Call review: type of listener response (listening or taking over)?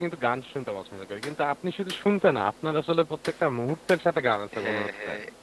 taking over